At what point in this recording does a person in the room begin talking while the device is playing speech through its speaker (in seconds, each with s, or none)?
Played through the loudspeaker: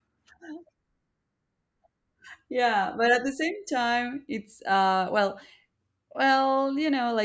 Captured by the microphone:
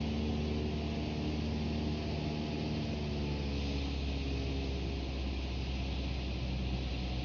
none